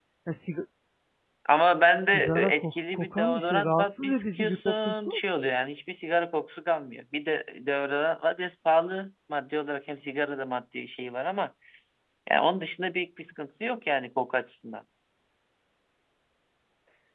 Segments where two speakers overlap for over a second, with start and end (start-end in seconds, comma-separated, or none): 2.0-5.2